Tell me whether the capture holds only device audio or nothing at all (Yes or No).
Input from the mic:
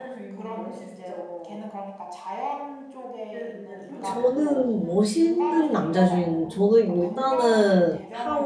No